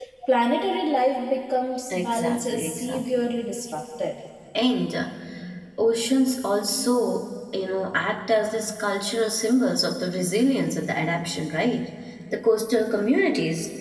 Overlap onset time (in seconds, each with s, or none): 1.9 s